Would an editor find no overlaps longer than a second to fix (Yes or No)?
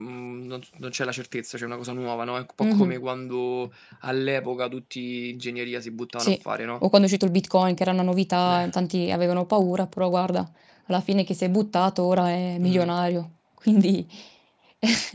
Yes